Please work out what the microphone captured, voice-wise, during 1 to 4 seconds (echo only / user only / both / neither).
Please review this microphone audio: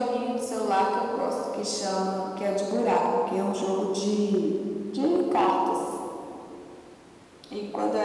echo only